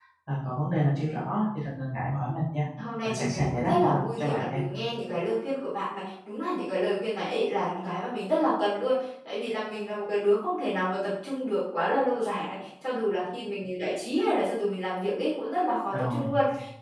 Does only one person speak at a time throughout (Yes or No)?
No